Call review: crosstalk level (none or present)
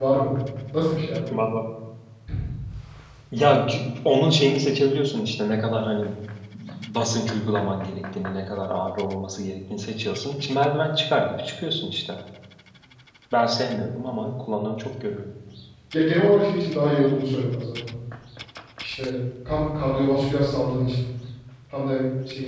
none